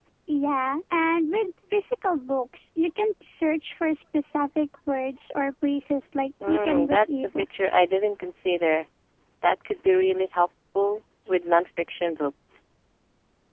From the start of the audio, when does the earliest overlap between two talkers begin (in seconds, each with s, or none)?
6.4 s